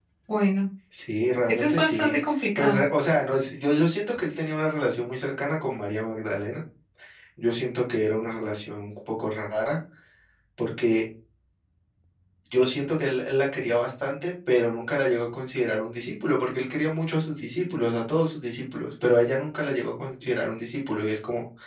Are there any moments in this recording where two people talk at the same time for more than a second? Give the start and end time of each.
1.5-2.8

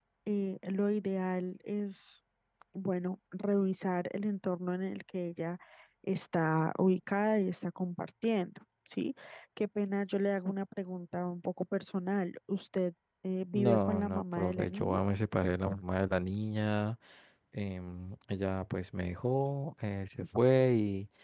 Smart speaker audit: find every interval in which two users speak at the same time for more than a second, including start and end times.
13.5-15.0

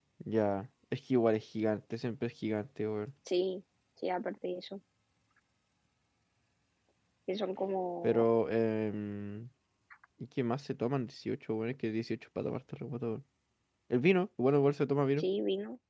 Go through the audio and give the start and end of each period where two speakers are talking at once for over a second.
none

